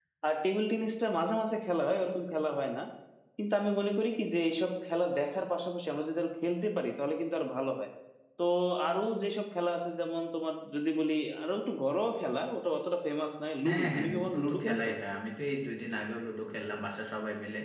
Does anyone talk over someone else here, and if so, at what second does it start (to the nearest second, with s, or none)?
14 s